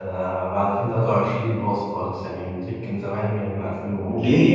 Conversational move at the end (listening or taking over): taking over